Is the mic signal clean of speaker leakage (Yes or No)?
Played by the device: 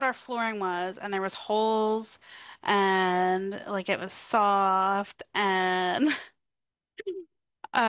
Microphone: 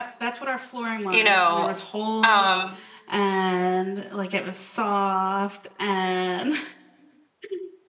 No